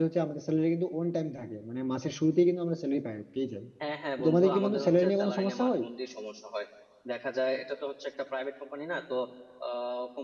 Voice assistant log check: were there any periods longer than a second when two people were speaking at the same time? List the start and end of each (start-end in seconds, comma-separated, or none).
4.2-5.8